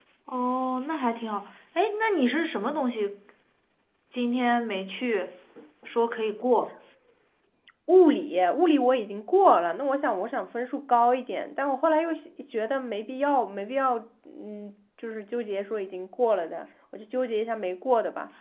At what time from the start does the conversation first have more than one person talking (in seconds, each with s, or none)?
none